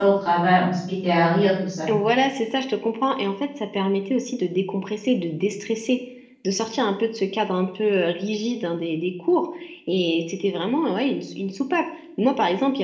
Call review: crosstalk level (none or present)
none